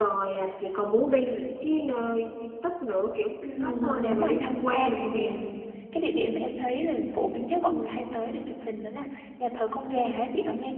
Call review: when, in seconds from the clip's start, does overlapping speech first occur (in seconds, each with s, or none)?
3.4 s